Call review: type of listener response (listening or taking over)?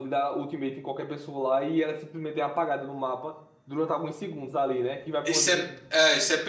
taking over